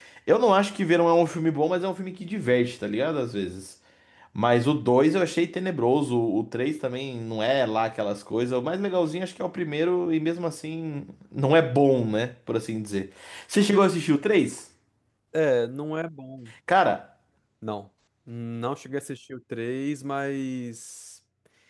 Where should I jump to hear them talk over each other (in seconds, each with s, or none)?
none